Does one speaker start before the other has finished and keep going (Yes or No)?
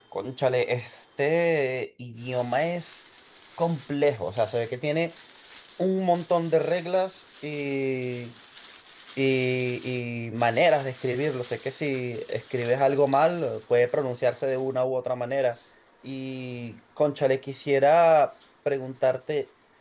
No